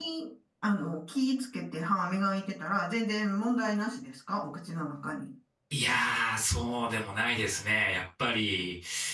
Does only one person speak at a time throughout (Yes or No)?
Yes